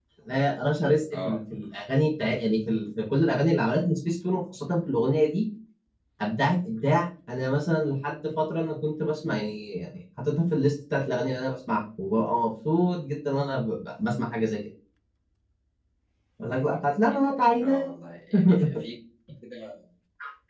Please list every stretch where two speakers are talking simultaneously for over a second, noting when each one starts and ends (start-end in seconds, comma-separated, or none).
none